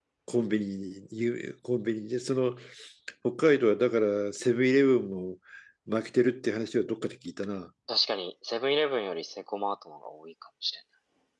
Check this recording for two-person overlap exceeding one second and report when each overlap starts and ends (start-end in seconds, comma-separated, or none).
none